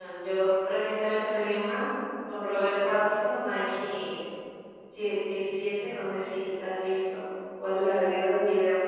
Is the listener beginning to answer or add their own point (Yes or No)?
Yes